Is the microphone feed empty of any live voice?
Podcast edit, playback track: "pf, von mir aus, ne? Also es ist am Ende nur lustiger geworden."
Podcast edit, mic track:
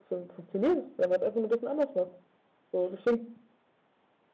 No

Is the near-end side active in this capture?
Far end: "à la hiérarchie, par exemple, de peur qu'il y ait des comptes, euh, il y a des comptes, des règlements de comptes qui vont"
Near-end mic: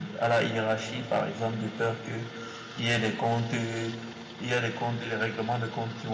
No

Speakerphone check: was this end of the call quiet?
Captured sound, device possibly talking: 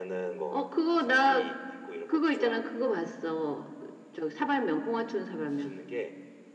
Yes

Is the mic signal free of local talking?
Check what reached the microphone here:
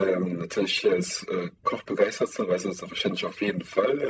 Yes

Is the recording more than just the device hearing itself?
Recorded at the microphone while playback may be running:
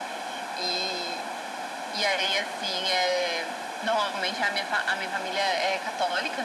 No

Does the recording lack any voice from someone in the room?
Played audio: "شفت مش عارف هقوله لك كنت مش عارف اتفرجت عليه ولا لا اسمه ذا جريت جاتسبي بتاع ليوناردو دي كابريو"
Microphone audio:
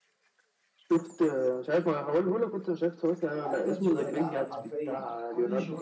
No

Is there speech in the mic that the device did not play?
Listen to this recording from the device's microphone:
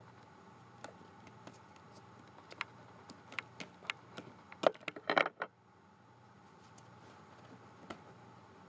No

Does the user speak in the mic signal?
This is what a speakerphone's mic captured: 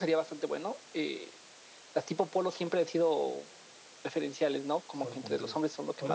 Yes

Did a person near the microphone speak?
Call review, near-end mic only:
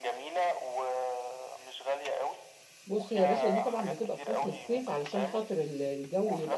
Yes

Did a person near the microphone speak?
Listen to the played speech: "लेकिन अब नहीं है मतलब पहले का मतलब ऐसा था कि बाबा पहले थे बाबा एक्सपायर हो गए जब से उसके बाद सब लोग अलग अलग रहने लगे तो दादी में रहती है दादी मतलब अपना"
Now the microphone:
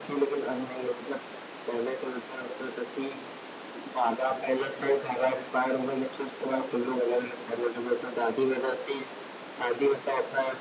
No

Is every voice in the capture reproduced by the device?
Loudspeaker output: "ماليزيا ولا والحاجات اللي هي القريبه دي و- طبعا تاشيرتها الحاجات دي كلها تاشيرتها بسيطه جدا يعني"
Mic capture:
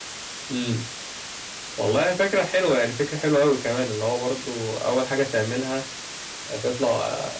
No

